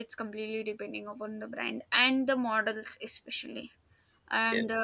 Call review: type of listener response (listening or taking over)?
listening